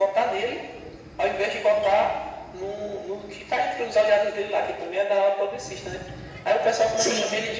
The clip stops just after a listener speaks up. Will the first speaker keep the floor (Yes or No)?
Yes